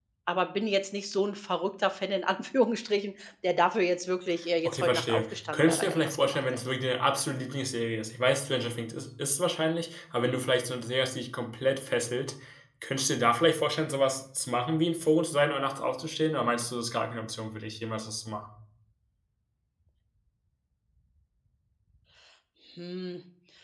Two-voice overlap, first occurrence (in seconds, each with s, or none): 4.7 s